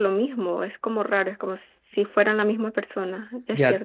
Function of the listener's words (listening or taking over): taking over